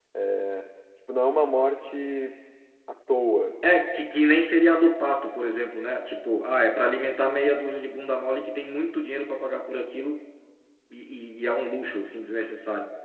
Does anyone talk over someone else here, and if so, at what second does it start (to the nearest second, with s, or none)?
none